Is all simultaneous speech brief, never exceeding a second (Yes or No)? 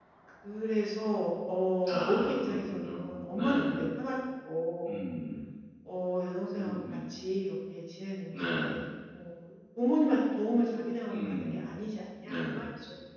No